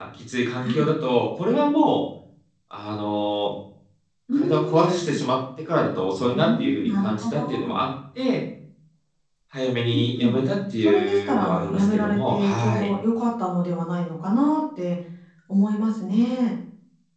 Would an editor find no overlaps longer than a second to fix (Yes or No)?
No